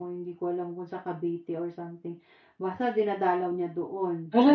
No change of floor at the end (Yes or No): No